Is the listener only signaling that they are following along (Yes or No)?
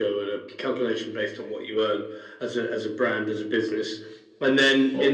No